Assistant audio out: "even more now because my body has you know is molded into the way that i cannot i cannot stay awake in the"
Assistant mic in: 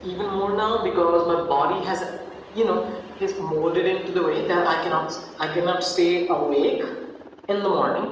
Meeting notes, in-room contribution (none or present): none